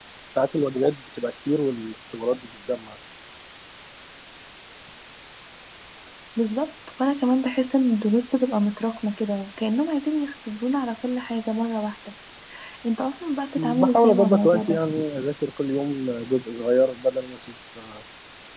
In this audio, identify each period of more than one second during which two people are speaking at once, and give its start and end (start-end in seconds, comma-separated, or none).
13.6-14.8